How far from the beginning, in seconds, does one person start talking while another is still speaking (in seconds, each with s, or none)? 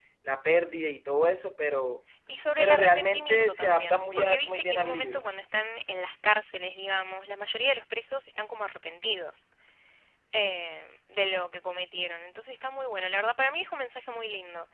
2.6 s